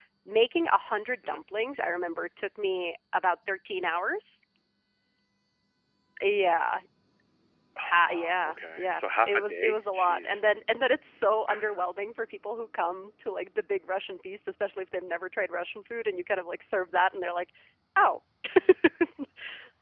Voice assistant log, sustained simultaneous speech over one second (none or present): present